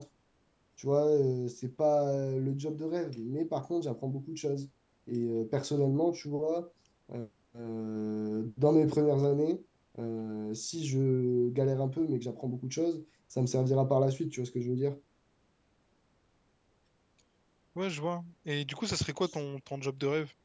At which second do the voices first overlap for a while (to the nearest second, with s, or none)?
none